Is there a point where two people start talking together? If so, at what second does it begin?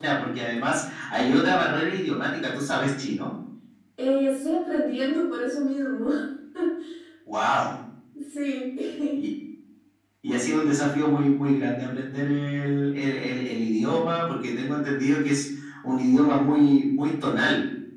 none

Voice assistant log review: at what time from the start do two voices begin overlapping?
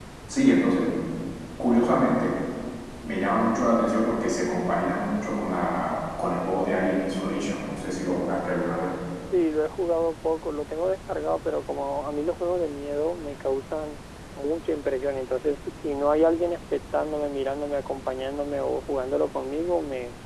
none

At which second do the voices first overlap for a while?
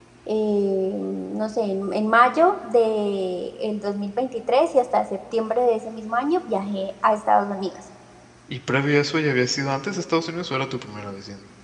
none

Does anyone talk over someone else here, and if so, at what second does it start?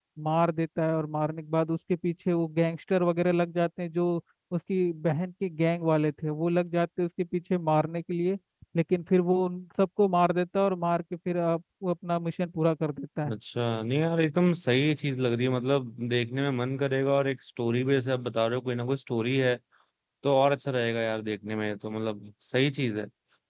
none

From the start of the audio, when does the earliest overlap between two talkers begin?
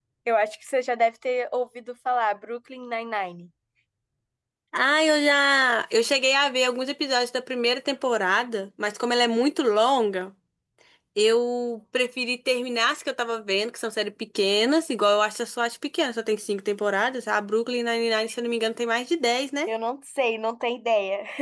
none

